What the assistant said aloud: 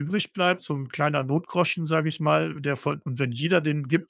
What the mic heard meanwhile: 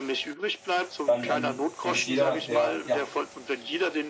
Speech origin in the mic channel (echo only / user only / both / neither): both